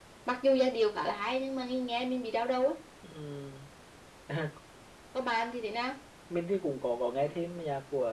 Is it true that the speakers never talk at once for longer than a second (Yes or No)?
Yes